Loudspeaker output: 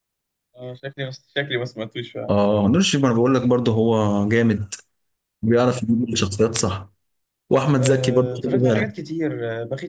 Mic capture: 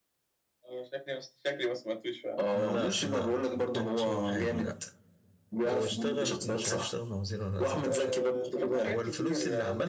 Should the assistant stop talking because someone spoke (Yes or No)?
Yes